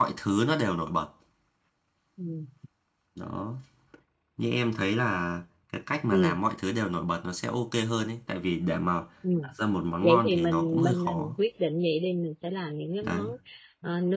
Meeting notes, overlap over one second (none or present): present